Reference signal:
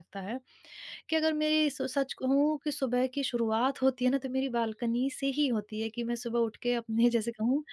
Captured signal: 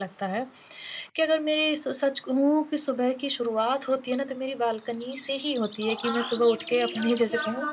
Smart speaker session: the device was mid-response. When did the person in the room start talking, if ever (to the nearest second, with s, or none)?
6 s